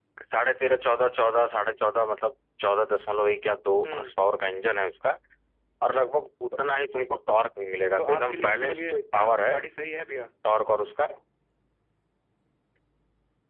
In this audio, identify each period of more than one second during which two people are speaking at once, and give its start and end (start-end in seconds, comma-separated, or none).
8.0-9.6